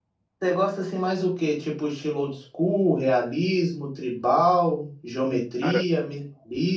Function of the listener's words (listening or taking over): listening